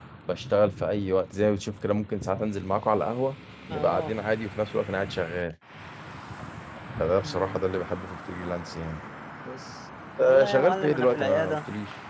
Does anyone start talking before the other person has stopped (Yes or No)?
Yes